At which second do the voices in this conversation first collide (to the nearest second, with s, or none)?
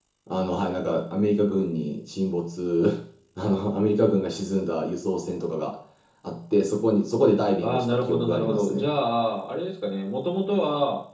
8 s